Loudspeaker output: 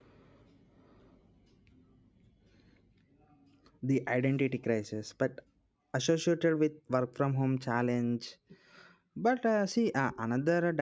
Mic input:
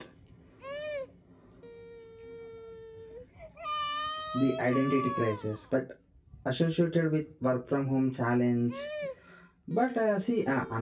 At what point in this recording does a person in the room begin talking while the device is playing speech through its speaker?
none

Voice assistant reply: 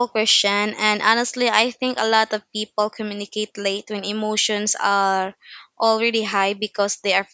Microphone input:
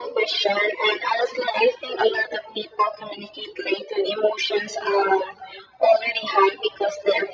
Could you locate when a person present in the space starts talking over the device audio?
none

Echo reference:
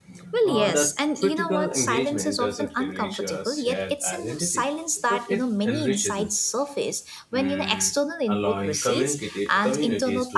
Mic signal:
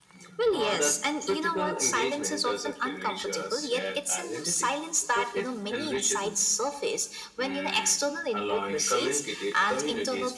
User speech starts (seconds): none

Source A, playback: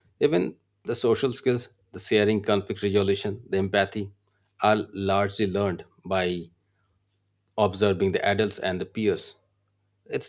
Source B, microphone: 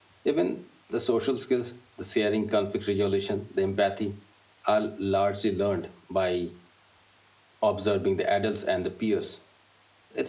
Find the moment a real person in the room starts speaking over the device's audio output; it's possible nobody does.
none

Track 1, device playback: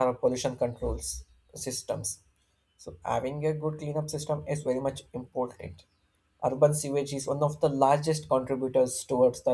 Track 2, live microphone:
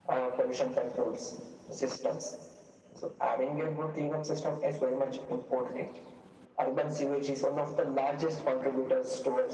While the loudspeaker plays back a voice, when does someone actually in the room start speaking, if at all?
none

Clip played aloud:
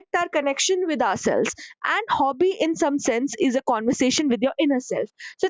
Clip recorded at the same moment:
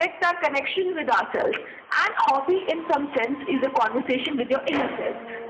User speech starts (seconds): none

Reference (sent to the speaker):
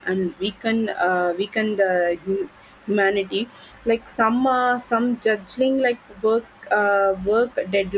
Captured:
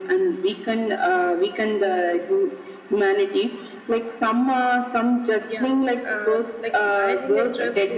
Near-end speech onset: 5.5 s

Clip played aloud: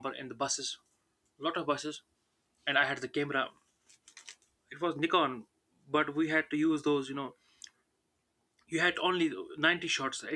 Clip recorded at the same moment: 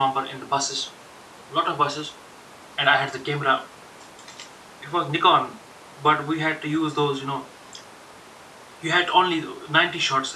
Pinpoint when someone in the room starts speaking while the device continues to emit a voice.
none

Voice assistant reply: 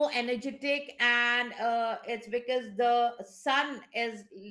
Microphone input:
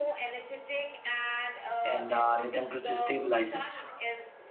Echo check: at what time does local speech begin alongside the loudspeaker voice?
1.8 s

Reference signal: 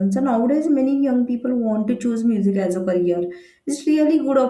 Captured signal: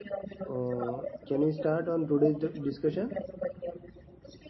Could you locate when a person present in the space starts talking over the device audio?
0.5 s

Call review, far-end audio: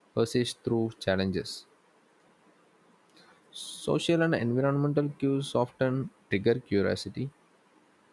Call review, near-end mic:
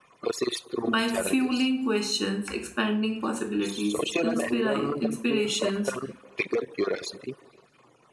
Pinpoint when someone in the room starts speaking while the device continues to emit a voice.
0.8 s

